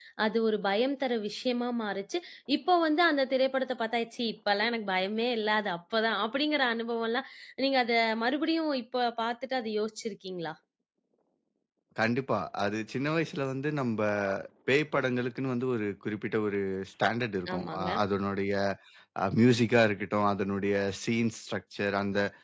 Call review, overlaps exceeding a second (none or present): none